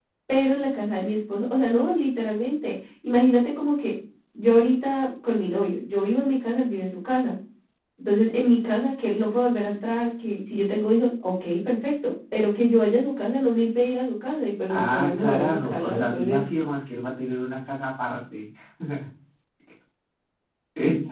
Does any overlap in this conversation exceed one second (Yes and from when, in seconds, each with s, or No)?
Yes, from 14.7 s